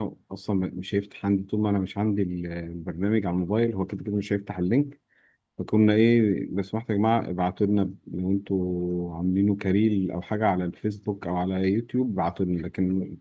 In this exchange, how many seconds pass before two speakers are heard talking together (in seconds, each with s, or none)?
none